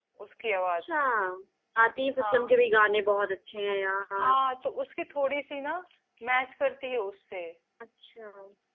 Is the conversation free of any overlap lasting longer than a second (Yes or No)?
Yes